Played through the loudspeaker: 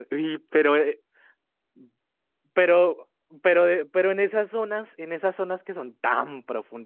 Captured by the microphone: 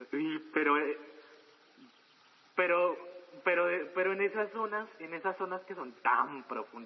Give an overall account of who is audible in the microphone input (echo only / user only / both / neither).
echo only